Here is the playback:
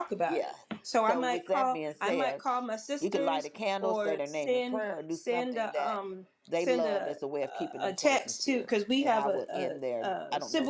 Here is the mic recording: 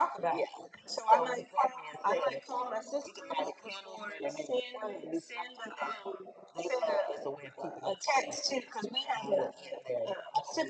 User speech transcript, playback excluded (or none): none